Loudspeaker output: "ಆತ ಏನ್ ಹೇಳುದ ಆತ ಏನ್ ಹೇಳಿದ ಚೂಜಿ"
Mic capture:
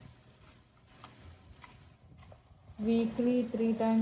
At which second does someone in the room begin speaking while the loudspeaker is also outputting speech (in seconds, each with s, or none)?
2.9 s